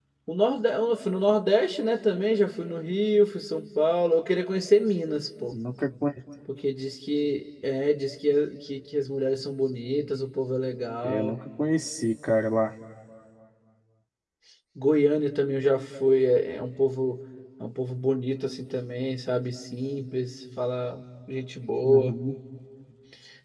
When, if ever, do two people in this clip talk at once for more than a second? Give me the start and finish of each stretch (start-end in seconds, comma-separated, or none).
none